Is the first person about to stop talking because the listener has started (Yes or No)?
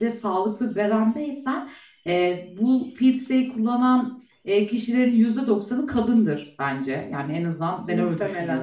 No